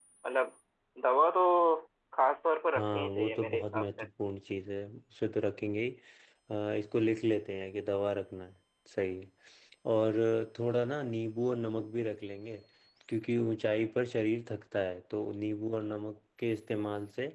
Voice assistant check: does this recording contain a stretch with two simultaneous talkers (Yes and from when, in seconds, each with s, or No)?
Yes, from 2.8 s